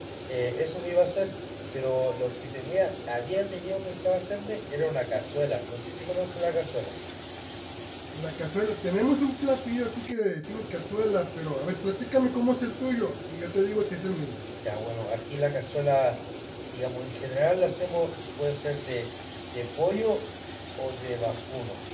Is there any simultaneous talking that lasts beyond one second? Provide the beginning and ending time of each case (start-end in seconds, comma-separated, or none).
none